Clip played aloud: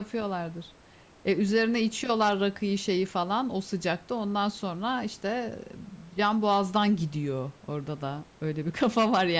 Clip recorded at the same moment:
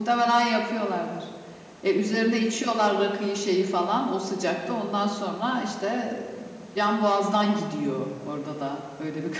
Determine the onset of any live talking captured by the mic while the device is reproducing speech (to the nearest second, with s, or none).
none